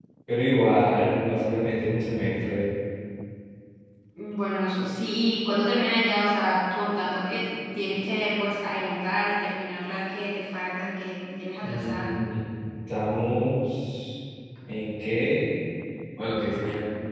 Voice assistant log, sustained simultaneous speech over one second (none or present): none